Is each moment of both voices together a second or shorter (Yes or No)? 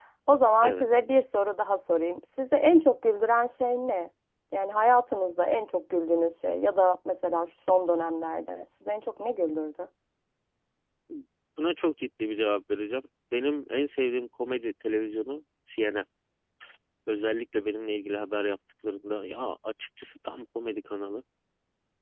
Yes